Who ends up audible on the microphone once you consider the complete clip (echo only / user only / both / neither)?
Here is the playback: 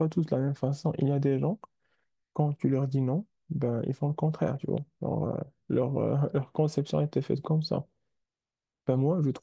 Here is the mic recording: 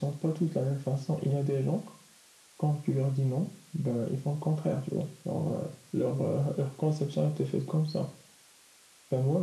echo only